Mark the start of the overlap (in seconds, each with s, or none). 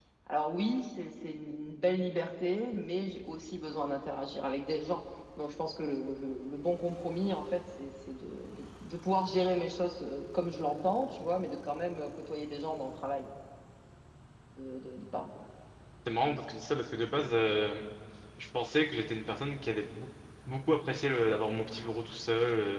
none